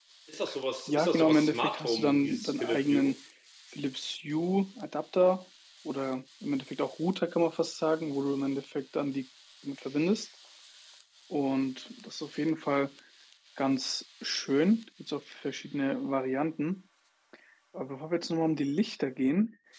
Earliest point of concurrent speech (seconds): 0.9 s

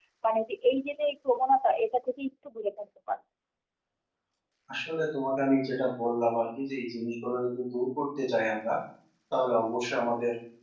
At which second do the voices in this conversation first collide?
none

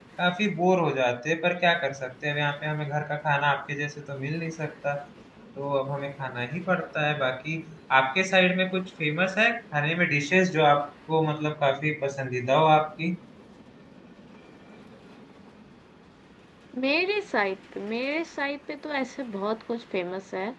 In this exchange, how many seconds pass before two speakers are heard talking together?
none

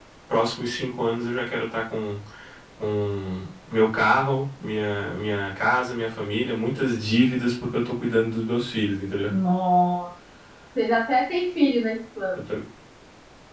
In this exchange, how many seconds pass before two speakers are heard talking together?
none

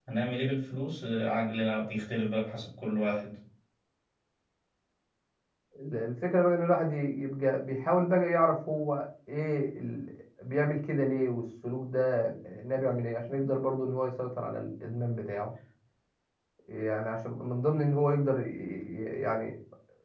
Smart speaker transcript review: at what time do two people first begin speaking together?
none

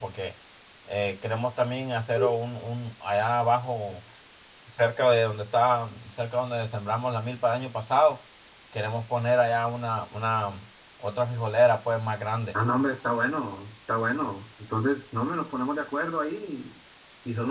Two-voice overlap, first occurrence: none

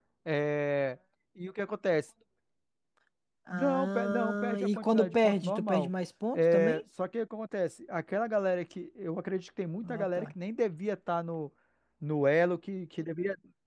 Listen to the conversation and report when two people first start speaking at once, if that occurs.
3.5 s

